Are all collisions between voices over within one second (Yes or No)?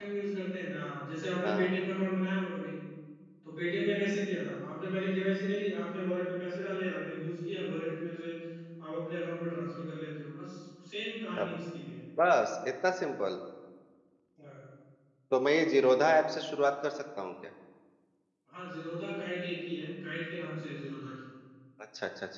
Yes